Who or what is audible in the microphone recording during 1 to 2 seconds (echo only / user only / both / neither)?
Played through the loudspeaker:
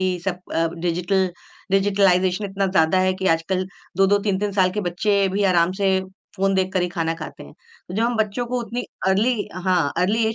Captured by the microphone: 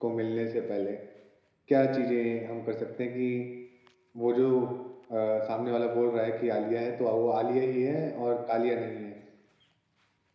user only